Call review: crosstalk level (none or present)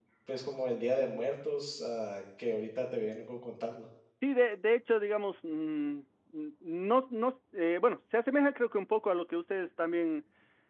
none